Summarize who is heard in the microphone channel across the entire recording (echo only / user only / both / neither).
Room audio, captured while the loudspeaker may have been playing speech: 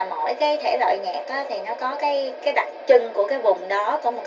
echo only